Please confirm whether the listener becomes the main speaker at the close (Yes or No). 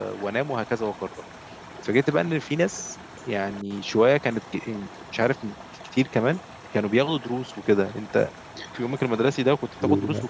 Yes